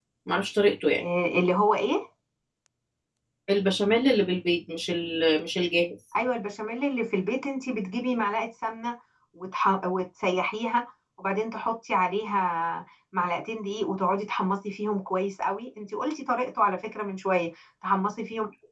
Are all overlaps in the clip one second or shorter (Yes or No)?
Yes